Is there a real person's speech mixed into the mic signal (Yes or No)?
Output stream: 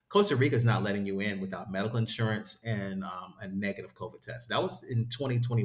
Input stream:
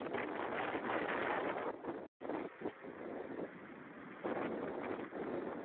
No